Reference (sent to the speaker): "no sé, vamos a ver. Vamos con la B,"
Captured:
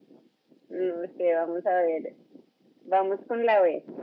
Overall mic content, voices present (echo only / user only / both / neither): echo only